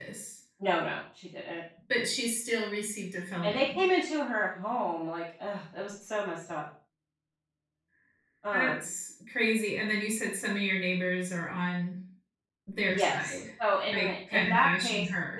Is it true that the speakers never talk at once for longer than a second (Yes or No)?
No